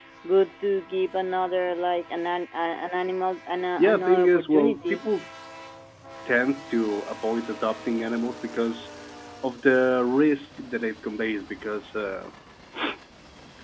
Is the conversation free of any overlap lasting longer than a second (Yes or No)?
No